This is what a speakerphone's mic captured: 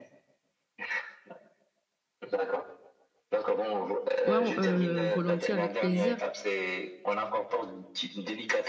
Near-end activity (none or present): present